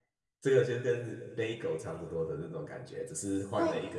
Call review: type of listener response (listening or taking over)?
taking over